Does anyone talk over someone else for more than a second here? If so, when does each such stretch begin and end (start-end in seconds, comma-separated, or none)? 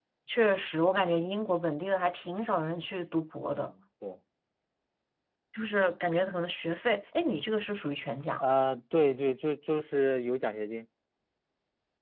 none